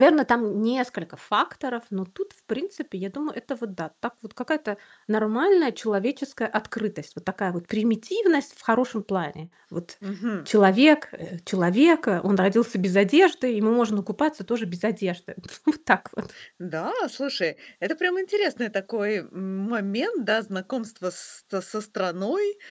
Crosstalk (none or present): none